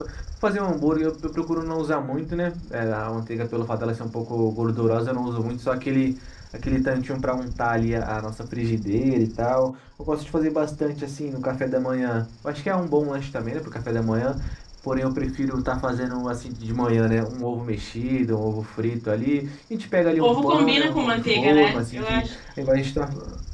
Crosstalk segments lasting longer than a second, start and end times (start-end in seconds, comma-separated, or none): 20.2-22.2